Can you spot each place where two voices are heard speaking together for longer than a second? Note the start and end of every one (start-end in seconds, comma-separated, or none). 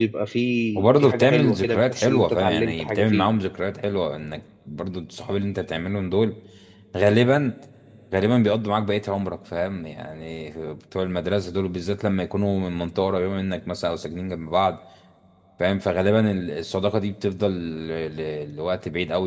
0.8-3.3